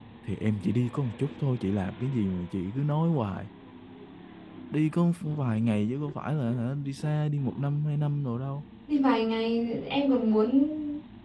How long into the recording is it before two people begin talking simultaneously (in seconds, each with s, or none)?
none